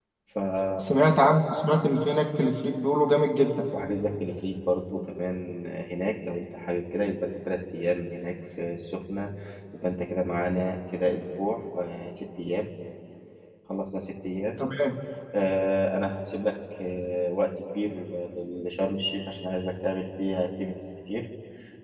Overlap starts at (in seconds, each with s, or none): none